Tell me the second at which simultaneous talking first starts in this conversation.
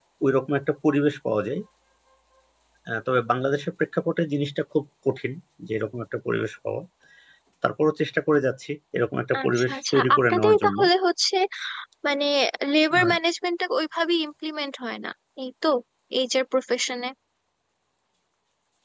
9.3 s

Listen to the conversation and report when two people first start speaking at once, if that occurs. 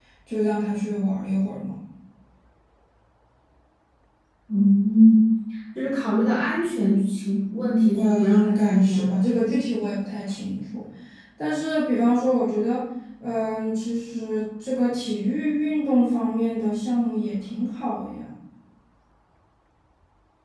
7.9 s

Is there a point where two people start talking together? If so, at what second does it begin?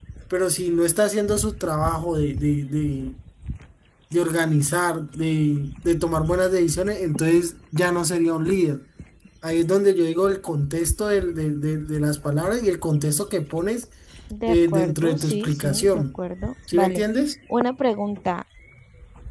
14.5 s

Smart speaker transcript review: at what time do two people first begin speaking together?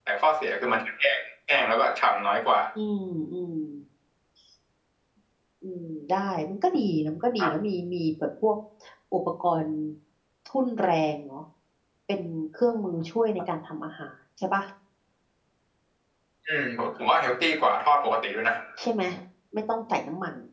none

